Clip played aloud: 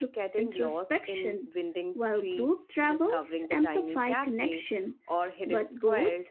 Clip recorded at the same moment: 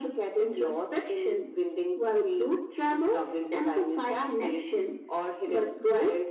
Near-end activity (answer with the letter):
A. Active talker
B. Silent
B